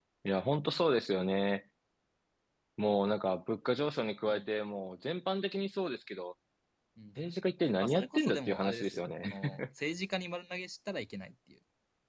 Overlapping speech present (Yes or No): Yes